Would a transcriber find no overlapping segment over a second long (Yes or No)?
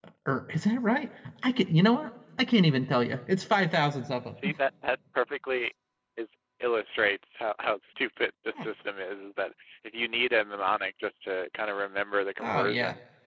Yes